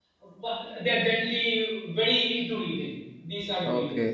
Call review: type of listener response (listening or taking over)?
taking over